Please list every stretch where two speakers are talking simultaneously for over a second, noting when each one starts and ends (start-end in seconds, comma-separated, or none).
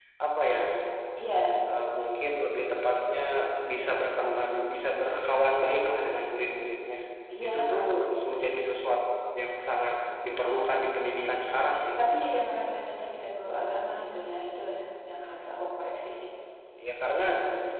none